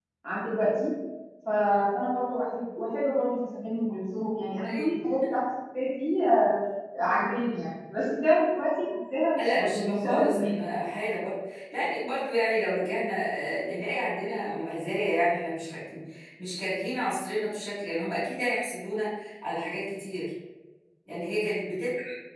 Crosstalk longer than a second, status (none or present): present